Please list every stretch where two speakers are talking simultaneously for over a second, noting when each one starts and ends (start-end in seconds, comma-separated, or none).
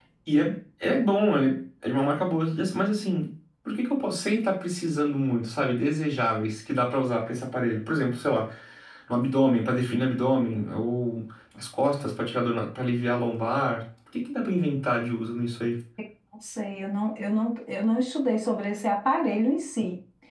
none